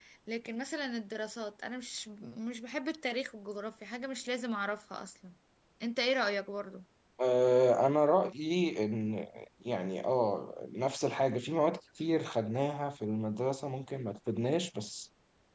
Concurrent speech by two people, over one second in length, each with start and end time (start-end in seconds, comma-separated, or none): none